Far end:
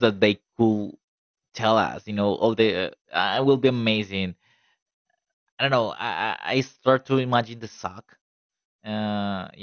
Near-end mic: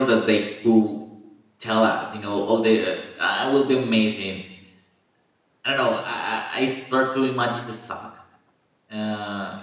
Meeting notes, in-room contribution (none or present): none